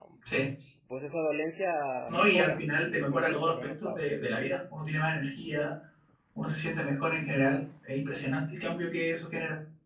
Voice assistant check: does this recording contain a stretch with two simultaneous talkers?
Yes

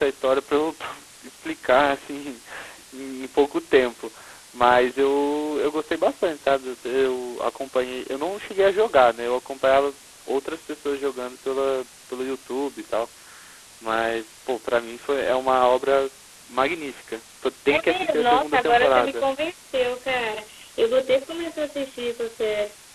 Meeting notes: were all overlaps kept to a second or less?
No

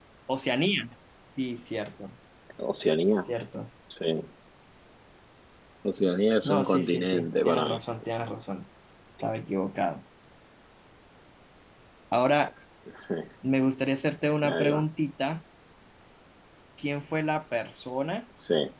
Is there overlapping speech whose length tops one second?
Yes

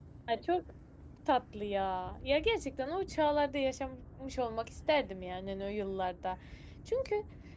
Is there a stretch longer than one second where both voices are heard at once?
No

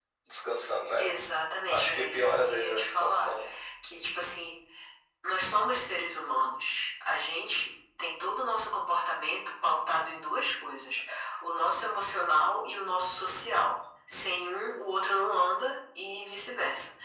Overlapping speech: Yes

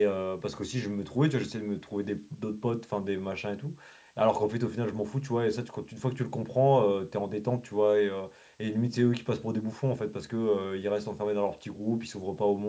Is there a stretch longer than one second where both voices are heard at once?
No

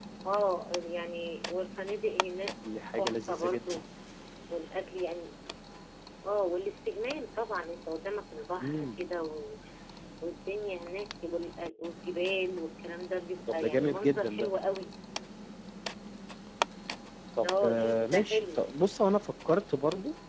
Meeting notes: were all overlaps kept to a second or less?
No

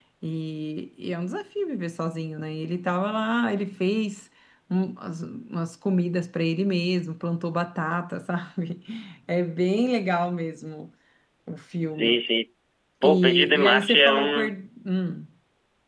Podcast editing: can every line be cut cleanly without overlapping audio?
No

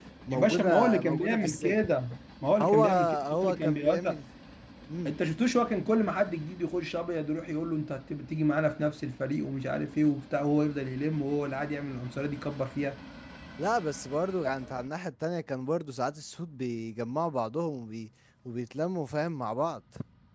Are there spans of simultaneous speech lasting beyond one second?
Yes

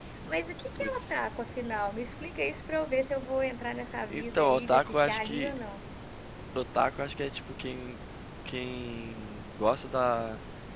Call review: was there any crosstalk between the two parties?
Yes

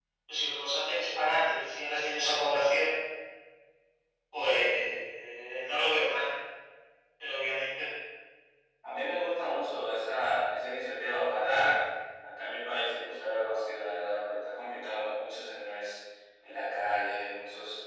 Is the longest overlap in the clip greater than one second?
No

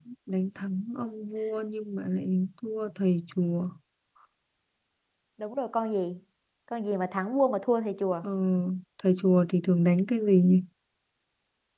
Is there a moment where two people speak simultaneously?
No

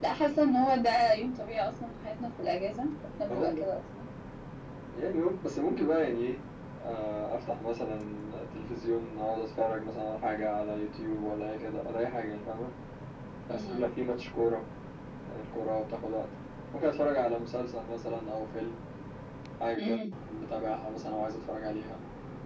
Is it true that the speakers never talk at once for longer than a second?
Yes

